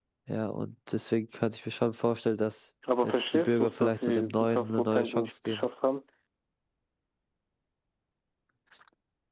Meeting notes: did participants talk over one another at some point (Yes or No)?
Yes